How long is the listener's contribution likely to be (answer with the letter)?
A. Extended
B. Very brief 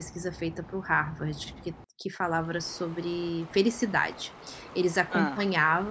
B